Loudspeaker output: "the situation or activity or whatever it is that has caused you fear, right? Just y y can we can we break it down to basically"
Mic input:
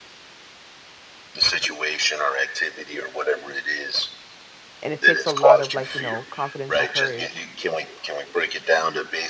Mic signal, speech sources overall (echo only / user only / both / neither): both